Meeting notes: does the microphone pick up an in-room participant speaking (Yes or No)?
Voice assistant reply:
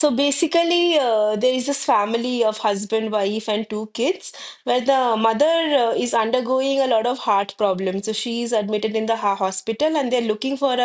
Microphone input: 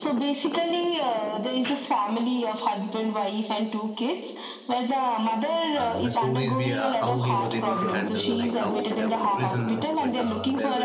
Yes